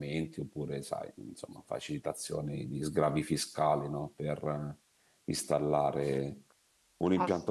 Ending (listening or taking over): listening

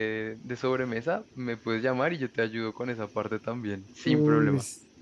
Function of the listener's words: taking over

